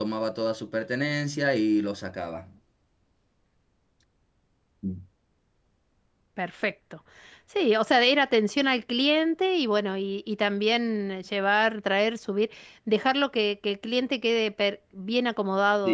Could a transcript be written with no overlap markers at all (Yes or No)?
Yes